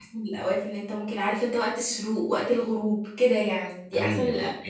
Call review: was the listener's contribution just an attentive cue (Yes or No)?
No